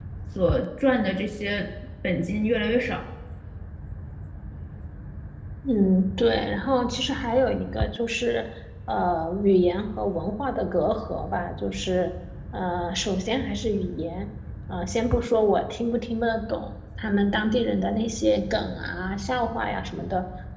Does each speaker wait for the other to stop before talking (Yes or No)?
Yes